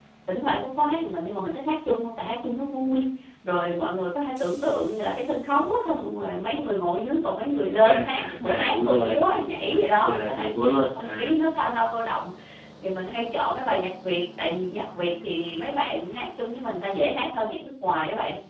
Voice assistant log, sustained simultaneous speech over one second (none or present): present